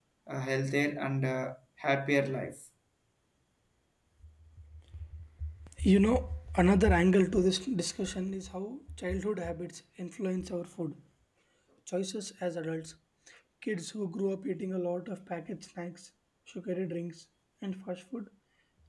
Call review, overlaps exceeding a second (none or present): none